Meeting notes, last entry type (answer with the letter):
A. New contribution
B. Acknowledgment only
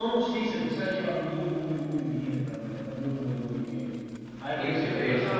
B